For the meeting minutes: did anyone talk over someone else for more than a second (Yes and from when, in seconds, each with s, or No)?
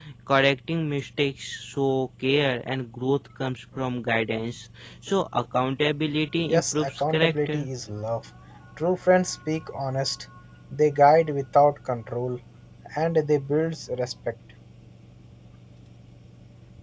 Yes, from 6.5 s